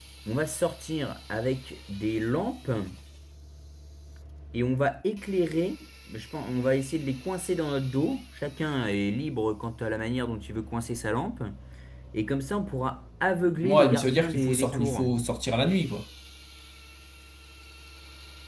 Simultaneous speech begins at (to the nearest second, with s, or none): 14 s